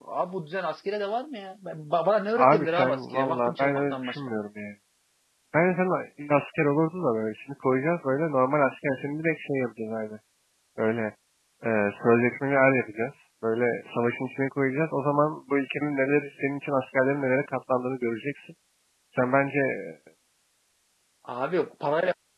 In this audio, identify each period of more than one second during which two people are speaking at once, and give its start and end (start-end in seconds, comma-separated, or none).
2.4-4.2